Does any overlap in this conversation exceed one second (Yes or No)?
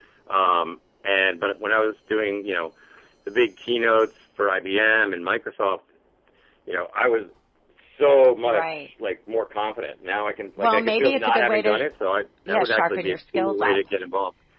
Yes